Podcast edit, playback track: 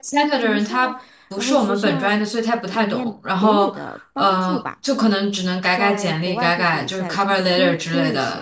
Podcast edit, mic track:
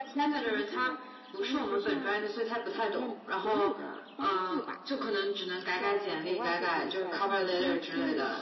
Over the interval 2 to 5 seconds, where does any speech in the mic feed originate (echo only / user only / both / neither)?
echo only